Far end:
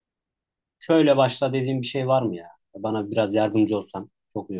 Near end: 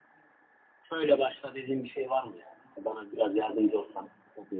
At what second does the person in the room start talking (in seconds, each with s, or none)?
none